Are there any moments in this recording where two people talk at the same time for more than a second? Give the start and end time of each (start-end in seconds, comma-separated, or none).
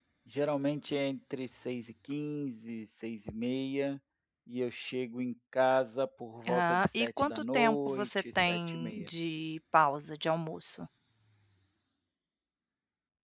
6.5-9.1